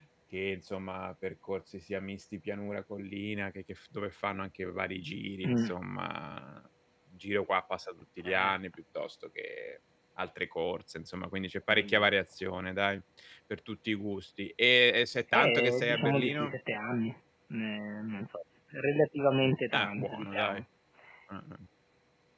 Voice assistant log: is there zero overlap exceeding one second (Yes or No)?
No